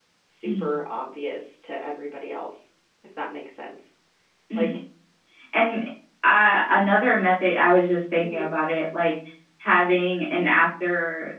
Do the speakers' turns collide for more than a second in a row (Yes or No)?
No